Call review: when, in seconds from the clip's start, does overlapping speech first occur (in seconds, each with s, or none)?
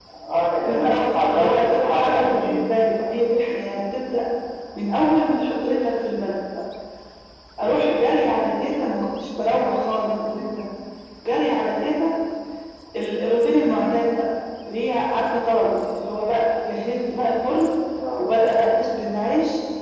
0.6 s